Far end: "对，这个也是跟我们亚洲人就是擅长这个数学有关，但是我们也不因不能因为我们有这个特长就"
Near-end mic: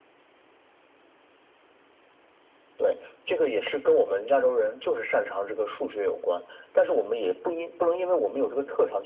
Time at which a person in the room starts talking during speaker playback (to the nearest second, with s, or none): none